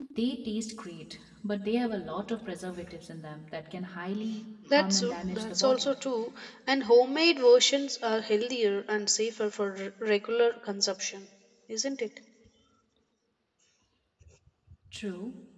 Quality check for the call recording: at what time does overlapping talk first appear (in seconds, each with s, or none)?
4.7 s